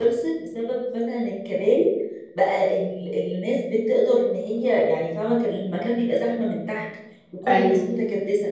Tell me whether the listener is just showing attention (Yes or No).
Yes